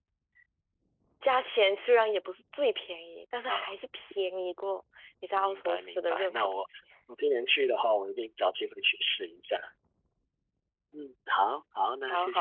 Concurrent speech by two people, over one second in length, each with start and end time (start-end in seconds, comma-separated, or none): 5.3-6.7